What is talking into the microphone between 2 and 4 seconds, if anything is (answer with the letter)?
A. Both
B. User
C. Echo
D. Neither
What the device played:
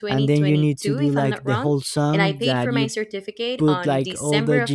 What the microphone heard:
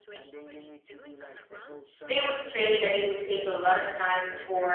A